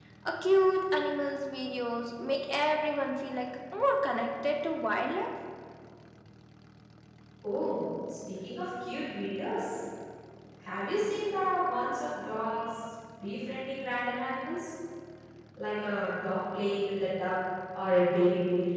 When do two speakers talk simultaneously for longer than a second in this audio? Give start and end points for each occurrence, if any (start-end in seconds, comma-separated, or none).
none